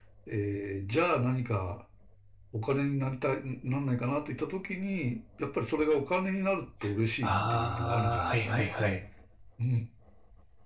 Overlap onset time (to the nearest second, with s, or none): 7 s